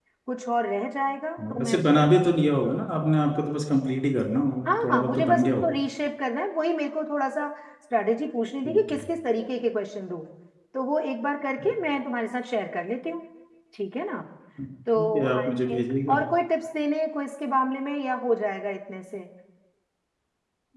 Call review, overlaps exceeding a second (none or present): present